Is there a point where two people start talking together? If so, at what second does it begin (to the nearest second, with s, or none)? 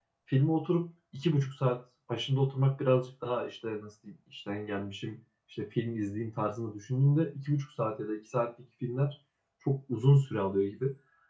none